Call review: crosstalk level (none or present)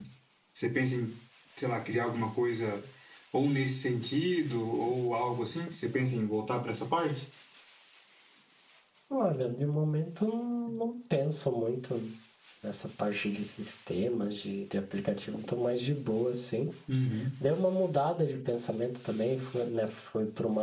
none